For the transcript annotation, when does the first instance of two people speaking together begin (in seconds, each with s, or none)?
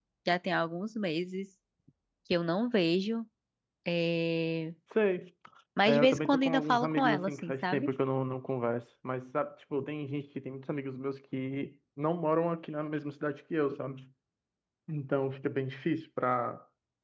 5.9 s